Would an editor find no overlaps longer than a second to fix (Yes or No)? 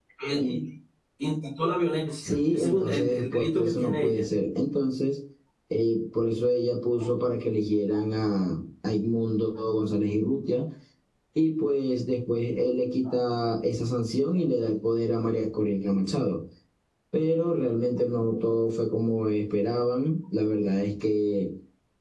No